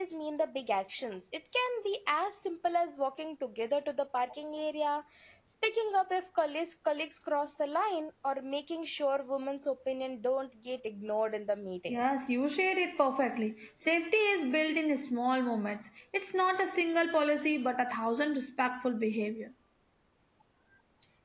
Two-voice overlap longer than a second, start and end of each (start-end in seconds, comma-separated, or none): none